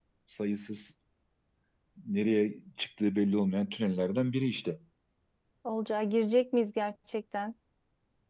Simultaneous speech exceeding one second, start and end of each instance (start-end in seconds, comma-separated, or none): none